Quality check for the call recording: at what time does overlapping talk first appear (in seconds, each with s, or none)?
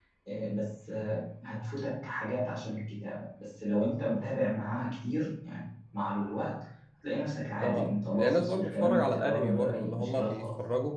7.6 s